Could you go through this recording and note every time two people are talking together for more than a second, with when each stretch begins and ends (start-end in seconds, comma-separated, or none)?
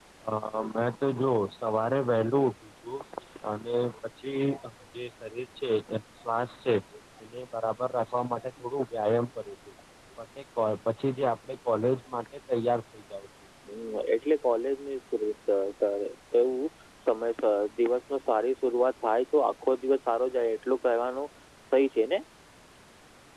none